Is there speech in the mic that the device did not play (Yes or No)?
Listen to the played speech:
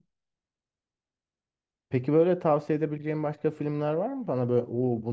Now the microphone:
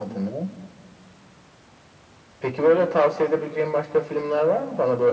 No